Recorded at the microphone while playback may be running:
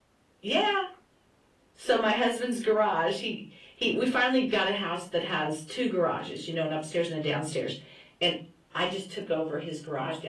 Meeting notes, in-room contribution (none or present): none